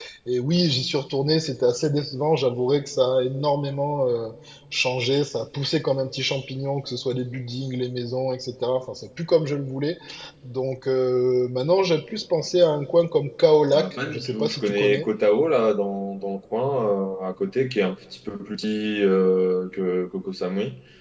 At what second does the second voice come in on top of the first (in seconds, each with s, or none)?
13.7 s